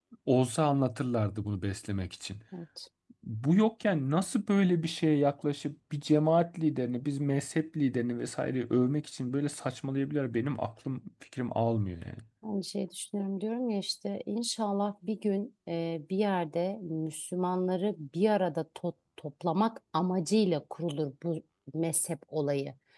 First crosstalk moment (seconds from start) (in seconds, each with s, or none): none